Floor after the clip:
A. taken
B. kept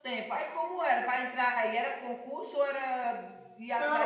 A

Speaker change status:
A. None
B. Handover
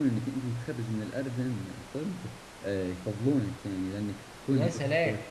A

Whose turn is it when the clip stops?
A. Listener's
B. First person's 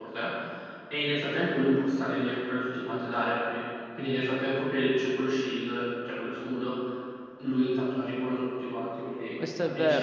A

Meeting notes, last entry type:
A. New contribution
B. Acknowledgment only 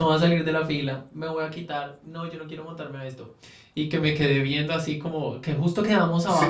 B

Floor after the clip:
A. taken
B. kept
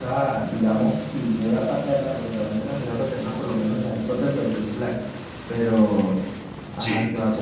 B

